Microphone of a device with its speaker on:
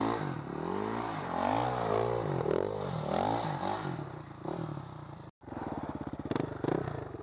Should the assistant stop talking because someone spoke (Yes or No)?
No